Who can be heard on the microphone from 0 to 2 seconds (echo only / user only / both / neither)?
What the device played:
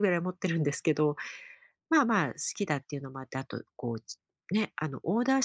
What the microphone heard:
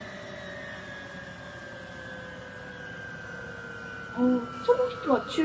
neither